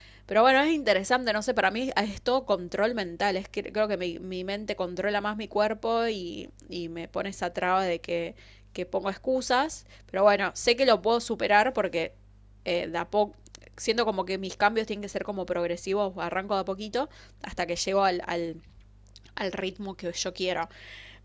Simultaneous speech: No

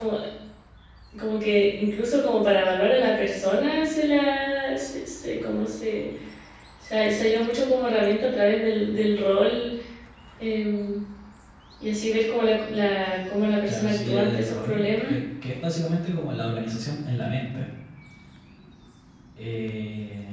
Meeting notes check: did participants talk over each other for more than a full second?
Yes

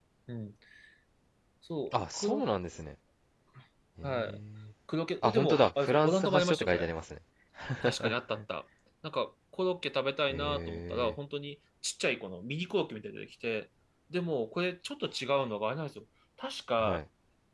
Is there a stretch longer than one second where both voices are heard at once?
Yes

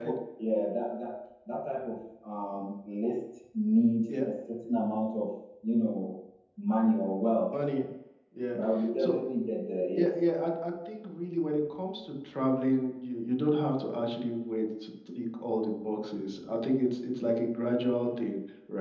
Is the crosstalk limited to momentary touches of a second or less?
Yes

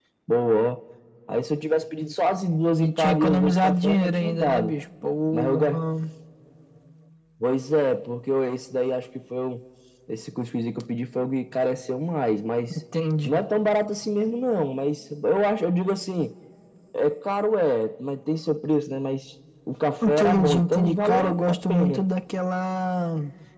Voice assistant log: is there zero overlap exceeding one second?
No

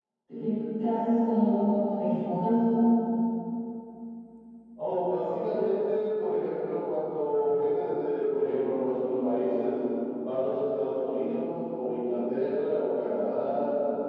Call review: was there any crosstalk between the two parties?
No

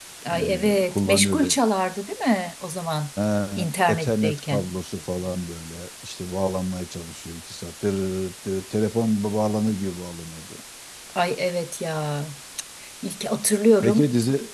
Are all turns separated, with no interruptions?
No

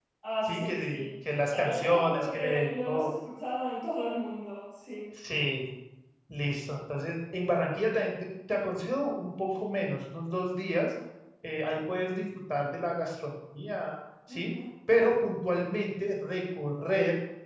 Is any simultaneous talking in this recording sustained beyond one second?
Yes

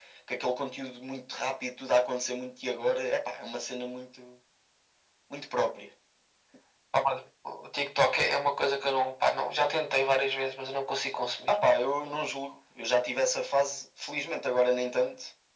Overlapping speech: No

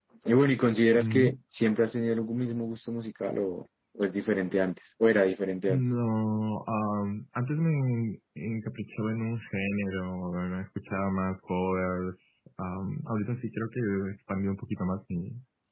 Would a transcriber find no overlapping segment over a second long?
Yes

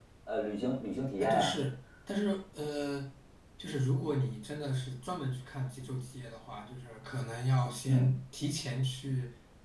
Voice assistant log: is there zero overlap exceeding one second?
Yes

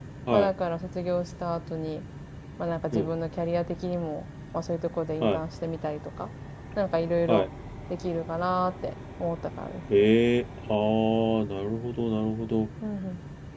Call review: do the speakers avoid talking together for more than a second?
Yes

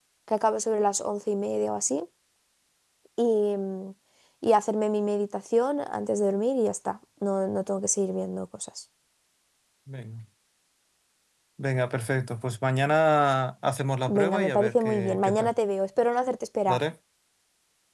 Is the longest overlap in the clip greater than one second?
Yes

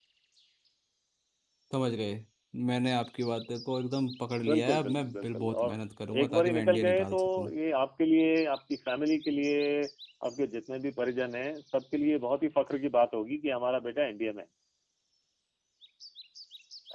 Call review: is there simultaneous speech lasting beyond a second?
Yes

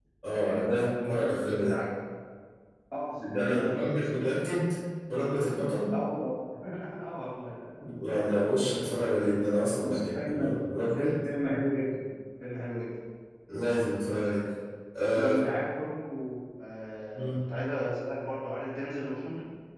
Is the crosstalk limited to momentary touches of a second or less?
No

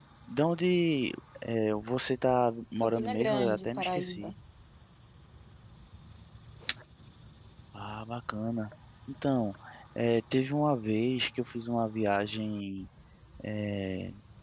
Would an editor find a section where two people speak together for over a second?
Yes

